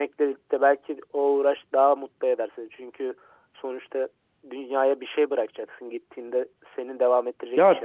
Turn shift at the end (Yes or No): Yes